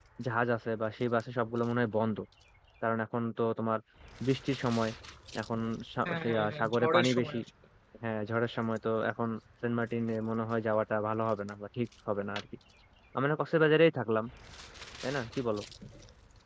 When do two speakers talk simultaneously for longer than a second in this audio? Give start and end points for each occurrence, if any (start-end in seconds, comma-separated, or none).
6.0-7.4